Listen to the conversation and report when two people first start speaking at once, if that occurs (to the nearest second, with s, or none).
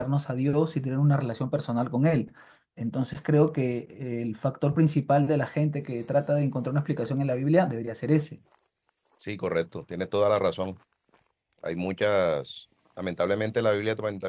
none